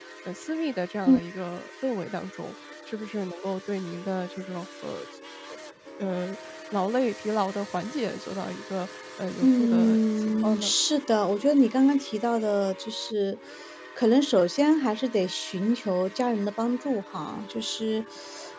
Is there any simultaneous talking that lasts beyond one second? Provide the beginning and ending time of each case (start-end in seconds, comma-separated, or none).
9.4-10.7